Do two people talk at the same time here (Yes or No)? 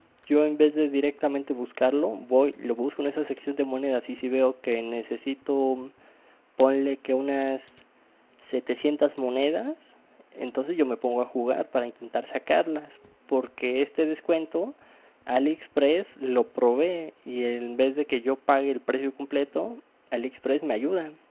No